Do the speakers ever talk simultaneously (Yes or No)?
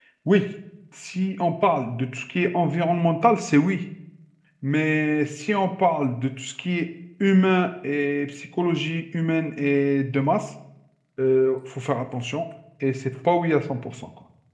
No